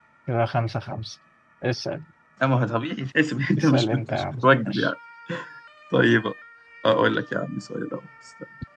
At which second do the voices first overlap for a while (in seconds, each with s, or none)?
3.6 s